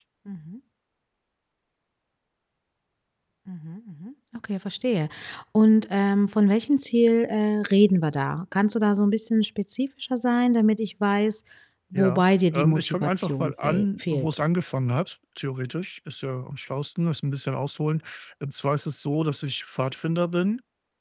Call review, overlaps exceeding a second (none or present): present